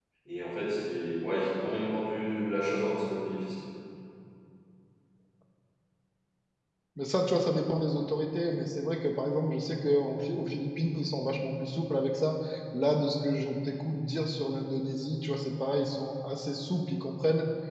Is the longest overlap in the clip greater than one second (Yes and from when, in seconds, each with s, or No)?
No